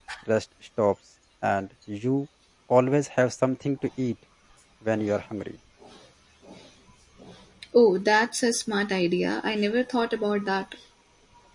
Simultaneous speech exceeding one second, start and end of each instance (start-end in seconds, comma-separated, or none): none